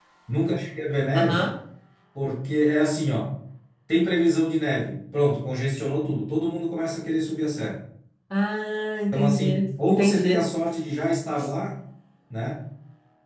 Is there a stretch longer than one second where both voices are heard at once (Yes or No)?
Yes